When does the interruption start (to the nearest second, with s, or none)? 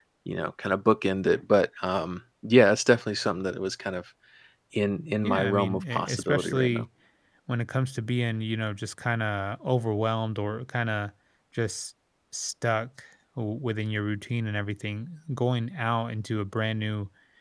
5 s